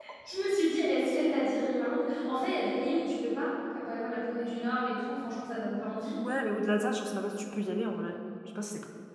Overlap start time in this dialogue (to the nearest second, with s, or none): none